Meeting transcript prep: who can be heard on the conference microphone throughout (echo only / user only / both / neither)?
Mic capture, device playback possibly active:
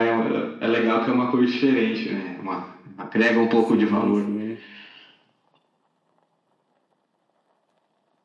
both